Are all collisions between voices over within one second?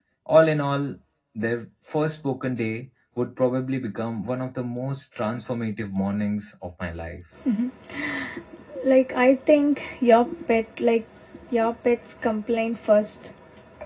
Yes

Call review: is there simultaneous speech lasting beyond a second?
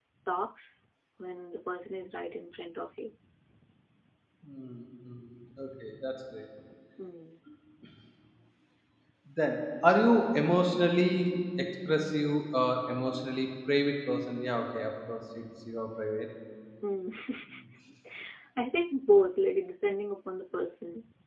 No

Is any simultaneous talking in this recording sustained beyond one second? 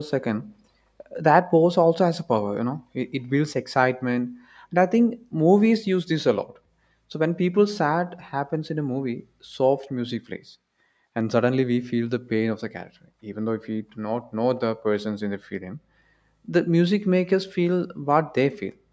No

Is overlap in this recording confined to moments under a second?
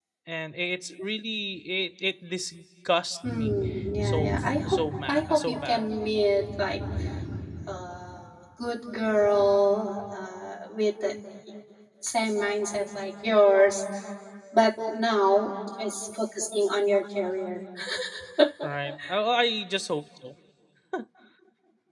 No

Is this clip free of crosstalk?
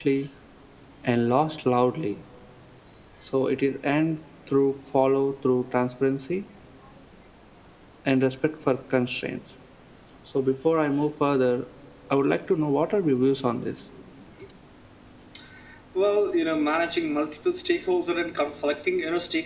Yes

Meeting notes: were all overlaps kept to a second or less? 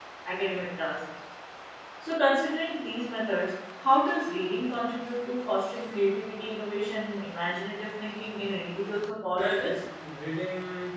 Yes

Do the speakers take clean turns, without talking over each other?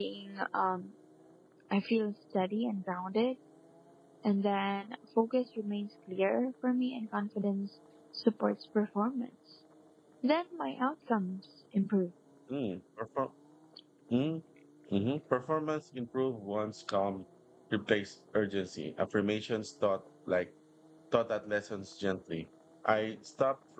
Yes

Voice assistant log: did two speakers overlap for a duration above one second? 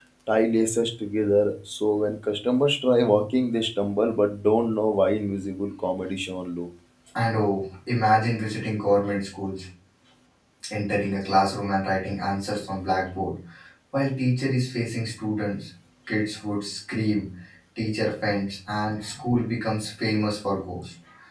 No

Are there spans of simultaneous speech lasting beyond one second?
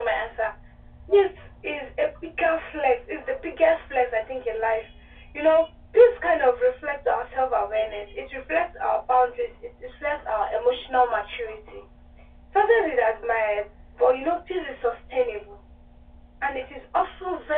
No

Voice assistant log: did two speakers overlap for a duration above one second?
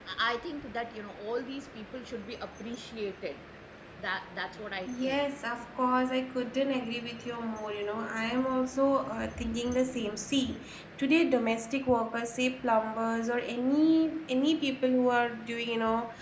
No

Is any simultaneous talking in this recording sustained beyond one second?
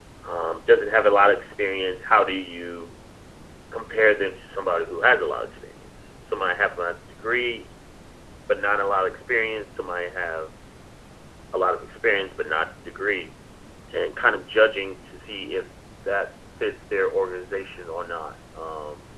No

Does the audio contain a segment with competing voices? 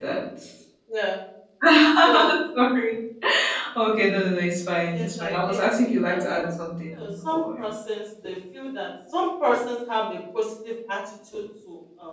Yes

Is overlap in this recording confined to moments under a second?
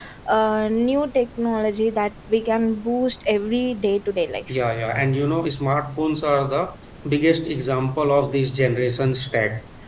Yes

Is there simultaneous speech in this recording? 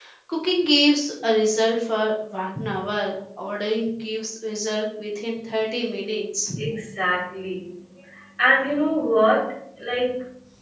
No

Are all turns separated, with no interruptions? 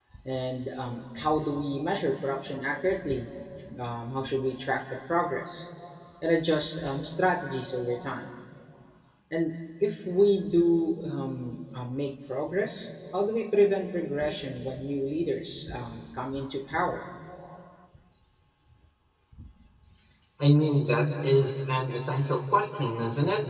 Yes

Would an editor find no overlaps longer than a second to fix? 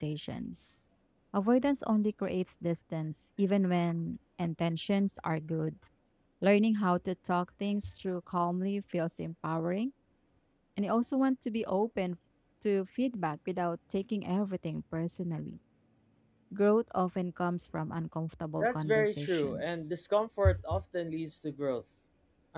No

